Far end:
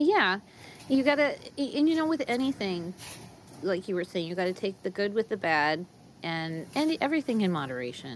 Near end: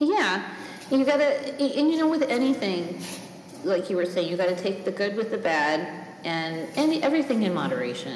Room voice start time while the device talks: none

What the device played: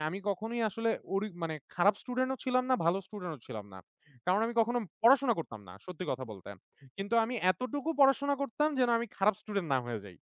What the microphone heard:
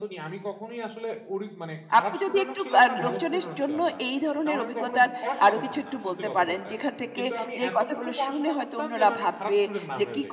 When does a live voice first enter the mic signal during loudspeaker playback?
2.0 s

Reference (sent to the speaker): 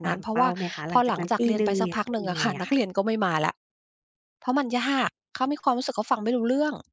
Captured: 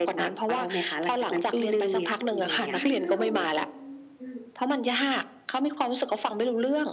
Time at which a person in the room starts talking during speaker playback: 2.7 s

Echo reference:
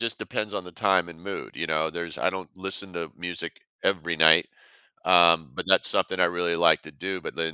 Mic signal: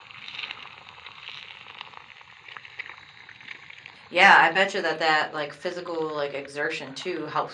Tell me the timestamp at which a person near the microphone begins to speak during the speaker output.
4.1 s

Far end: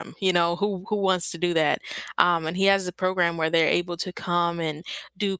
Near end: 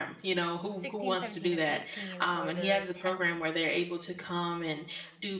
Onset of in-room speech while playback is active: 0.7 s

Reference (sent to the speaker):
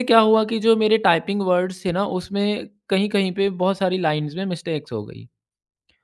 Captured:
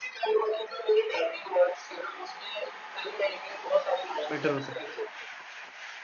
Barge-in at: 4.3 s

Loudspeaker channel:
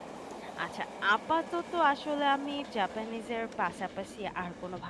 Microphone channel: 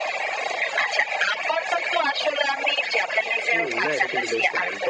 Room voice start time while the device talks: 3.5 s

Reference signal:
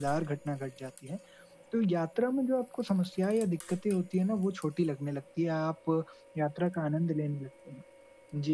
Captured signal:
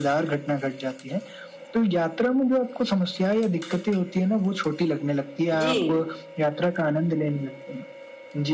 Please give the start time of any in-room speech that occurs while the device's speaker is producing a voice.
5.6 s

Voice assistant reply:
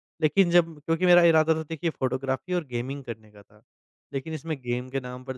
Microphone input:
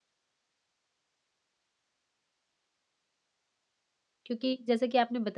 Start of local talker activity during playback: 4.2 s

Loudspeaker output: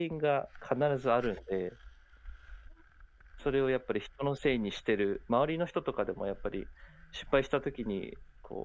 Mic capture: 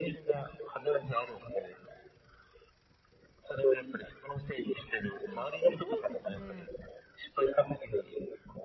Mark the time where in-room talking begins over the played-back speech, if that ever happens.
5.2 s

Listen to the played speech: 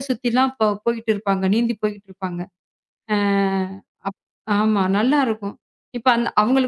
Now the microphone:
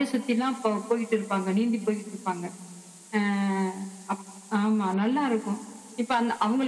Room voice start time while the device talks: none

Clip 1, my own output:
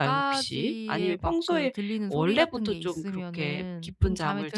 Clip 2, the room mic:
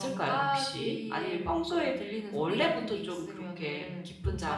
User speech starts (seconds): none

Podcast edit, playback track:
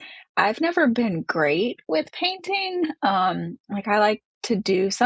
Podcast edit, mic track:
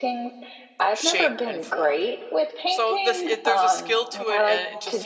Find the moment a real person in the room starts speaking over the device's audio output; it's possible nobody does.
0.9 s

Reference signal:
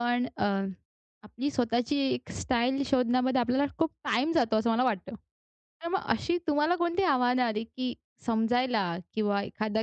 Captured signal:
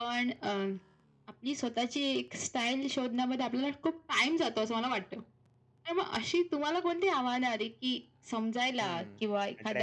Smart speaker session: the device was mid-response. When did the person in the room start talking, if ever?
8.8 s

